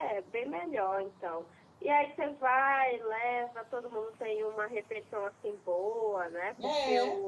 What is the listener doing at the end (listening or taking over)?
listening